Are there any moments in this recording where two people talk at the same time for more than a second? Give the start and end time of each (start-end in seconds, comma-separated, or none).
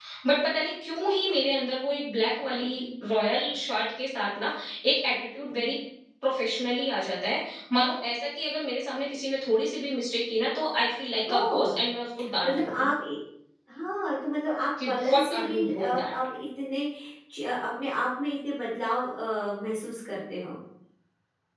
14.8-16.1